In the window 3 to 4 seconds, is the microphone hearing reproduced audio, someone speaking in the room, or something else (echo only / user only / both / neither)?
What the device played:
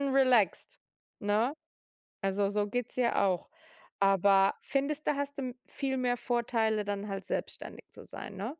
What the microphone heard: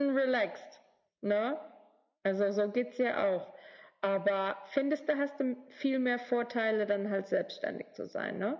echo only